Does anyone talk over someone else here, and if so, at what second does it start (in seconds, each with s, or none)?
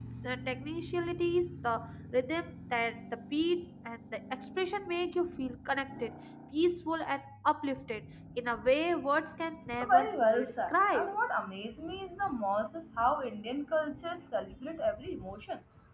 9.8 s